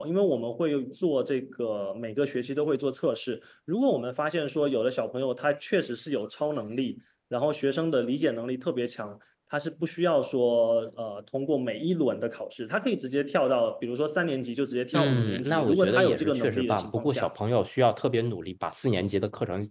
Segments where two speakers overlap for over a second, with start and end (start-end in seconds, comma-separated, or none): 14.9-17.3